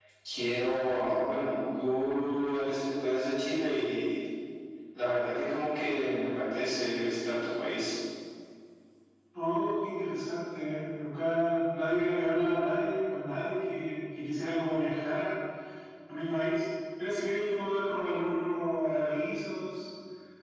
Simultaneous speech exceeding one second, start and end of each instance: none

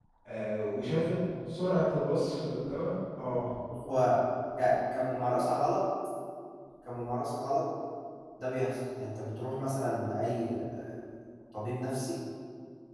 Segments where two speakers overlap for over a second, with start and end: none

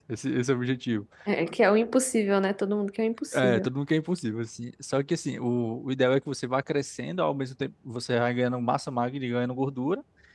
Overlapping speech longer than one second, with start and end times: none

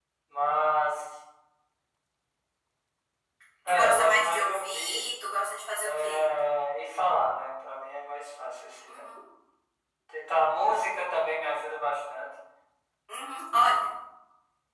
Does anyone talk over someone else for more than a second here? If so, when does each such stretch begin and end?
3.7-5.0

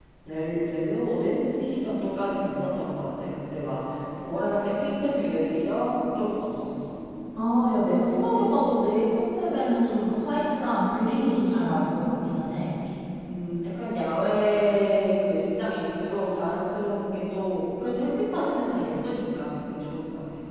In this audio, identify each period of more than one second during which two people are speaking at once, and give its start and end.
none

